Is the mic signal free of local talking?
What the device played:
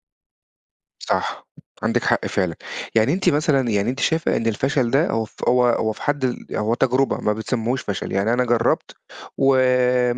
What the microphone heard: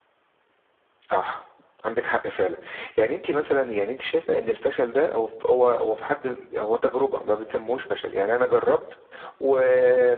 Yes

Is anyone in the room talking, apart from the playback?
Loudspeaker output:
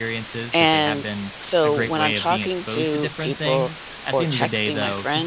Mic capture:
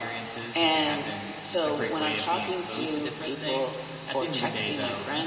No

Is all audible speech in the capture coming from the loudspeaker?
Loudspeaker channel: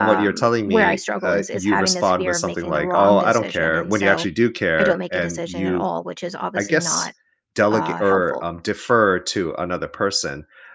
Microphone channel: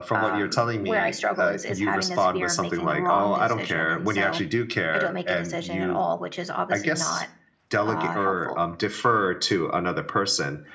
Yes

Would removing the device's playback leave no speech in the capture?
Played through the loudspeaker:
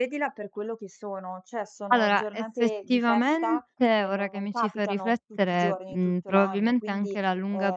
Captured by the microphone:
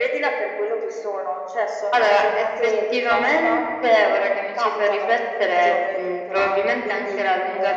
Yes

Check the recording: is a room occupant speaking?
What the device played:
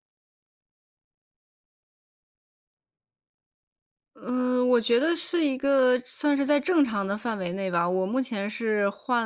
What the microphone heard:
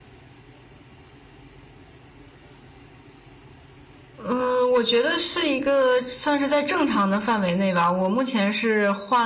No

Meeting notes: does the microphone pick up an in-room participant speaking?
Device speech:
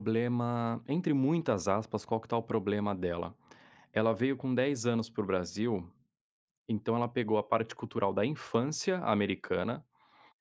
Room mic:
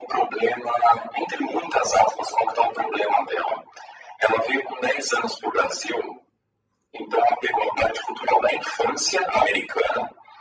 No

